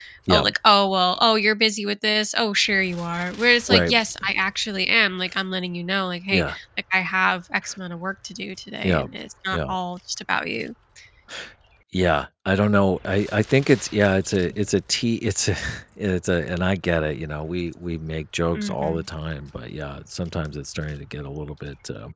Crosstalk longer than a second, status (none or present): none